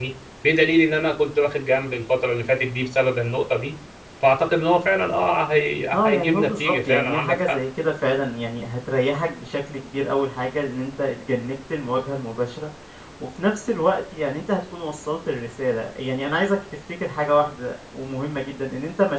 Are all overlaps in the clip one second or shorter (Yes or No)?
No